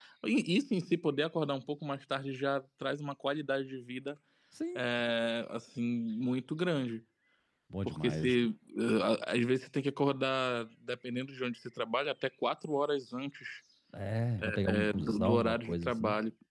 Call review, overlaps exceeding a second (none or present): present